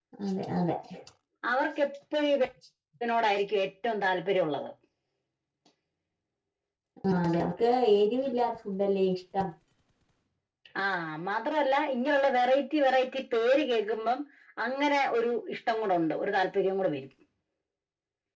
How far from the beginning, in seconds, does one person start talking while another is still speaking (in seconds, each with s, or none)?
none